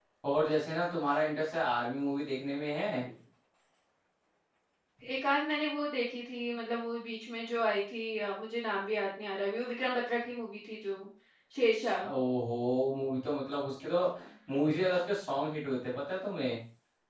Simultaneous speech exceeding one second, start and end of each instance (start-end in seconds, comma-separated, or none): none